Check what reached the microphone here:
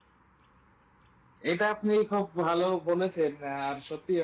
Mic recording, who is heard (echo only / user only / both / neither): user only